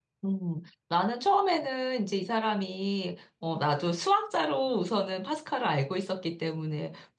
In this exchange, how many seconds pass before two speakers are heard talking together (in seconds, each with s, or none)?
none